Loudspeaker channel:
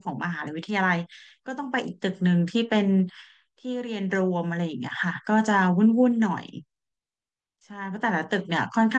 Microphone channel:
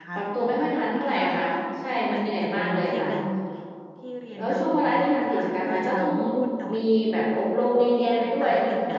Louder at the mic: user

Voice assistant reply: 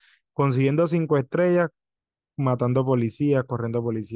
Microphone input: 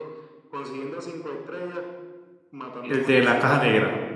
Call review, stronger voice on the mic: user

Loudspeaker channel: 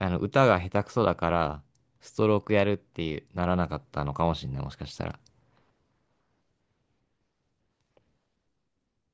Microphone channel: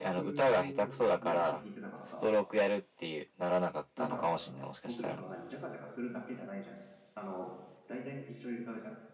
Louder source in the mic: echo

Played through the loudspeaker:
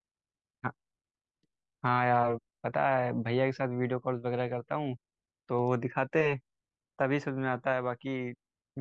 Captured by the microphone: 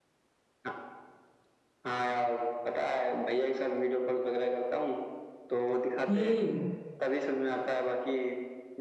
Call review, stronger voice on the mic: user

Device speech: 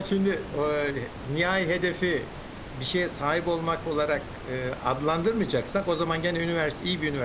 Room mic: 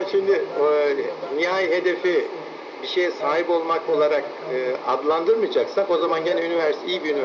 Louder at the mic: echo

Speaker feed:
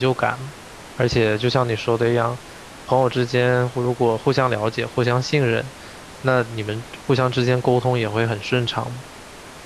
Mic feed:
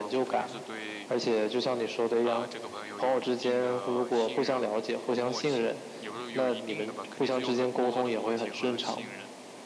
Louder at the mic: echo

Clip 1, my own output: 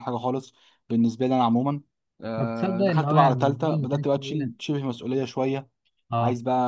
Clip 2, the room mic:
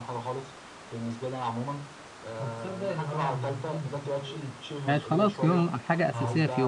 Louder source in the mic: user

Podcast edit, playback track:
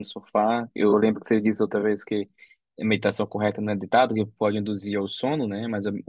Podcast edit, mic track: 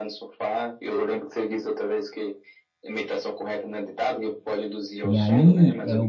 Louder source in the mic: user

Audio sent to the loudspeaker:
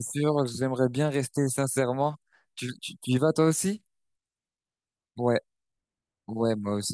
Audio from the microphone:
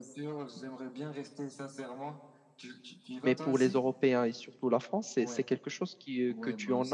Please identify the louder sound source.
user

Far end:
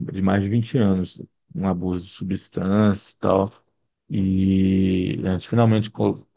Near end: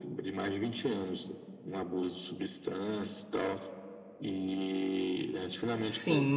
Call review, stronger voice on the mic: user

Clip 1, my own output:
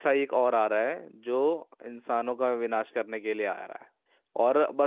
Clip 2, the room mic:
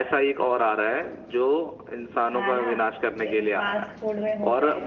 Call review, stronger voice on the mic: echo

